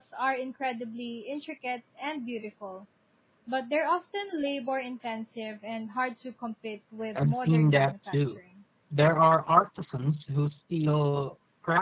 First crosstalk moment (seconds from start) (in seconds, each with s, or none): 7.2 s